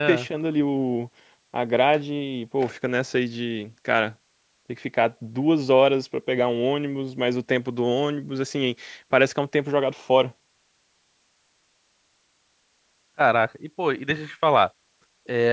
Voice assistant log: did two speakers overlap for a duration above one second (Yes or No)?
No